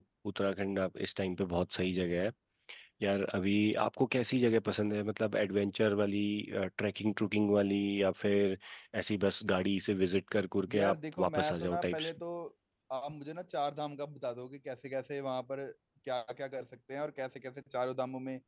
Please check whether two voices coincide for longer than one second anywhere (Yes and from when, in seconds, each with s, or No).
Yes, from 10.7 s